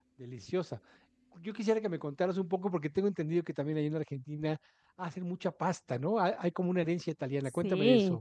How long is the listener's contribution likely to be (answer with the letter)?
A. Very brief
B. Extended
B